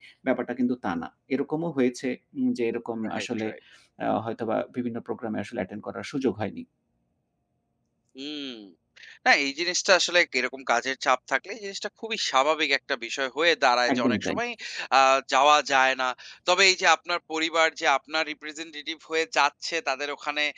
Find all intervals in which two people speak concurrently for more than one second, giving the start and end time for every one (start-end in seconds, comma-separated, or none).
none